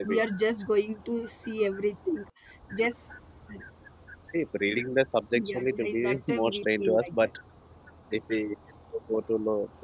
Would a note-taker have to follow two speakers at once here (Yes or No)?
Yes